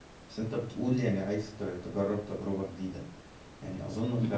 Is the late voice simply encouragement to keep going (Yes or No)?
Yes